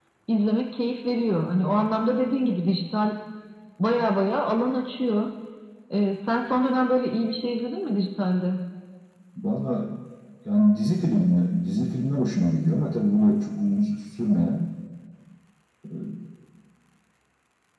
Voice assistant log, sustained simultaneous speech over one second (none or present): none